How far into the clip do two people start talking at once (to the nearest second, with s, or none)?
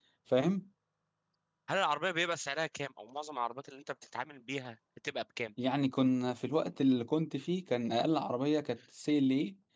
none